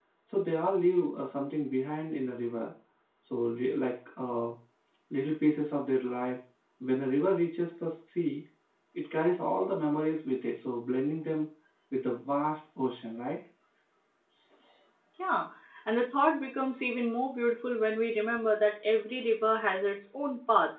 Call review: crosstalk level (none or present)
none